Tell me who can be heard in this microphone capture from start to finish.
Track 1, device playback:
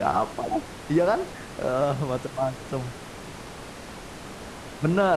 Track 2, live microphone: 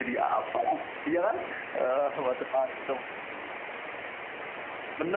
echo only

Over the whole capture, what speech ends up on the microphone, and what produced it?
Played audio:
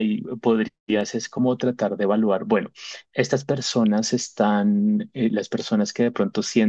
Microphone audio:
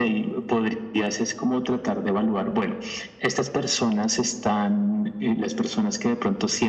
echo only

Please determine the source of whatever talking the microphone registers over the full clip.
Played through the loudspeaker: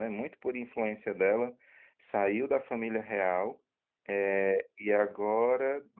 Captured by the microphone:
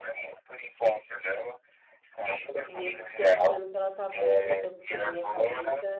both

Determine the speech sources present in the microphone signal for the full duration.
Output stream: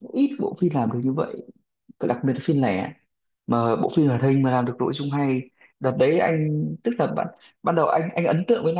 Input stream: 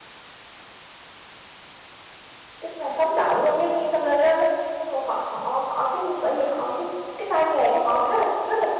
user only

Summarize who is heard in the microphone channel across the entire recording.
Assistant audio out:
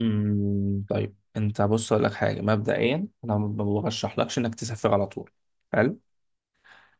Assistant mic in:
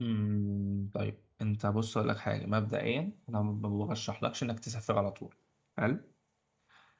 echo only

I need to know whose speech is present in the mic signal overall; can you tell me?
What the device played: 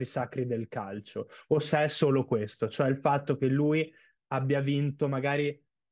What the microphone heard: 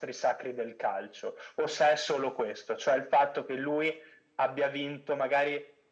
echo only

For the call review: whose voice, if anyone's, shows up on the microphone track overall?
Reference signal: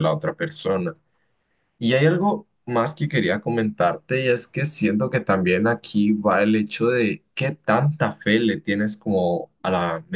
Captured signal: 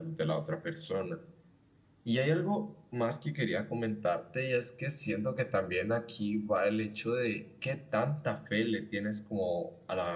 echo only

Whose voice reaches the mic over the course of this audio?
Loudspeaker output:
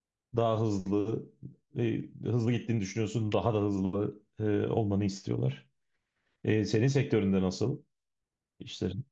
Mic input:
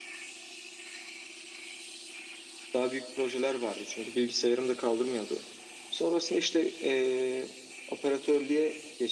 user only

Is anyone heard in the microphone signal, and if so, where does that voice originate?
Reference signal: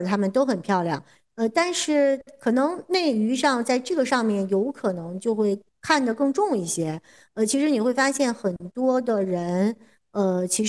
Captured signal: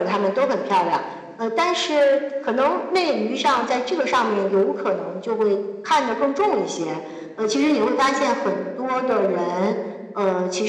echo only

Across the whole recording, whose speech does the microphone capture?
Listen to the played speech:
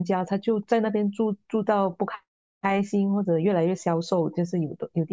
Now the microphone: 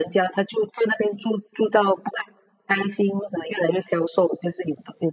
echo only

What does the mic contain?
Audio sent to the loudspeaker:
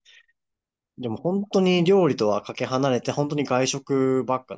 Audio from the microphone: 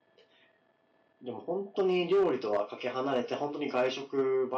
echo only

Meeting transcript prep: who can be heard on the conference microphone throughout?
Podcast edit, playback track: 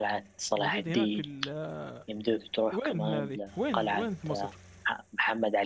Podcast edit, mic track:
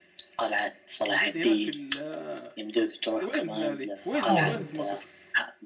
both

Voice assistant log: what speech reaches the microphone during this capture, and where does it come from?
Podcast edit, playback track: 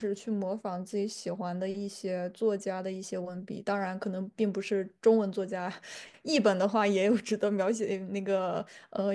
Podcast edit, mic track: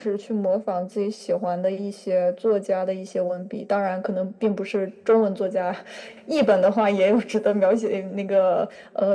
echo only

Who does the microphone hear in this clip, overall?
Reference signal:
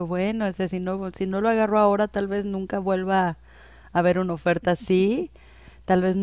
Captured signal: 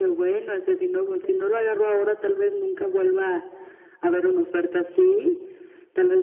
both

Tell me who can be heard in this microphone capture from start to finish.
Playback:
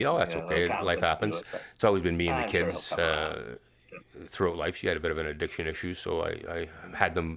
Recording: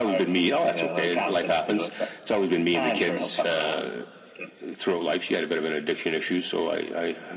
echo only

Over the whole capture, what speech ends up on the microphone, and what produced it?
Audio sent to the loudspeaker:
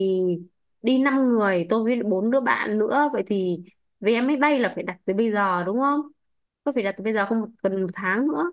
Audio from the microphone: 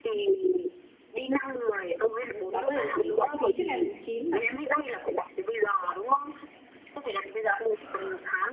both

